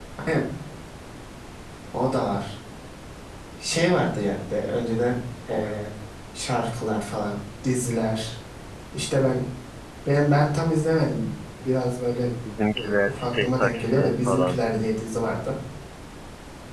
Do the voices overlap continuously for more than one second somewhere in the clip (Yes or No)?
Yes